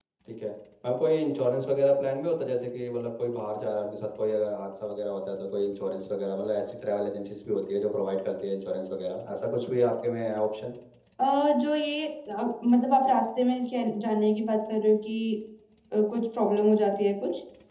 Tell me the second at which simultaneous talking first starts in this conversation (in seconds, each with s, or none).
none